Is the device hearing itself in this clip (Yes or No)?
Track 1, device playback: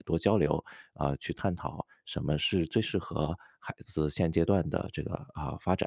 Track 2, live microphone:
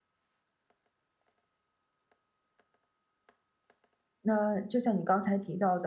No